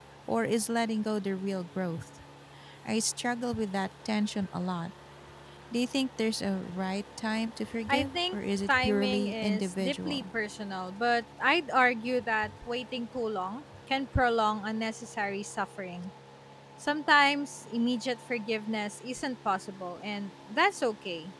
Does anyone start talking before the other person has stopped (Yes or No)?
Yes